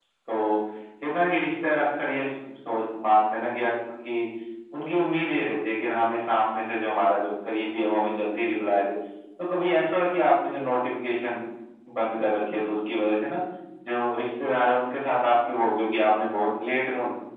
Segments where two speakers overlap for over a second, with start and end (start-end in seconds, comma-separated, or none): none